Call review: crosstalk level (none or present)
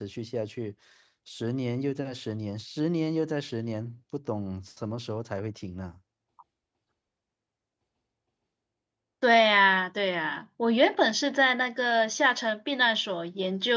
none